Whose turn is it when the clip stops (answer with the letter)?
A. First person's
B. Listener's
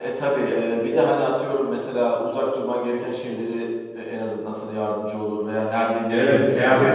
B